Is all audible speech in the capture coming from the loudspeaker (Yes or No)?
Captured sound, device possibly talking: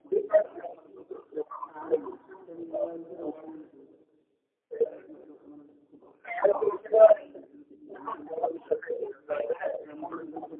No